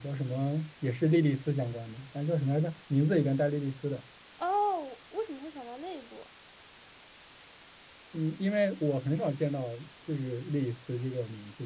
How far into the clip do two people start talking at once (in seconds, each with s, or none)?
none